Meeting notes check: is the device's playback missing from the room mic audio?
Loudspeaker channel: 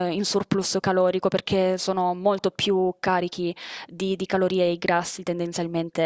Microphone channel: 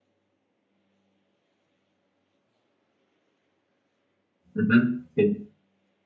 Yes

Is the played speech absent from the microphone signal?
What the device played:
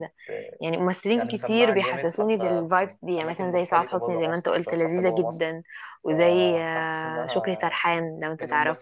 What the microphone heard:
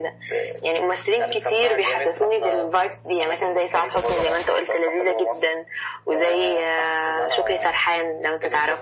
No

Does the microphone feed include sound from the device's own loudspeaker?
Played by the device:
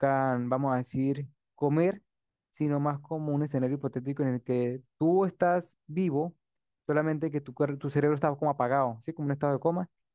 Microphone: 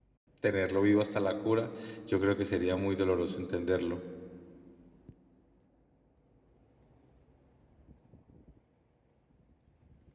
No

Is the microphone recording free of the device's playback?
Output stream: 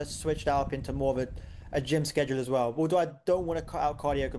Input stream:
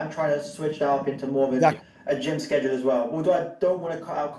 No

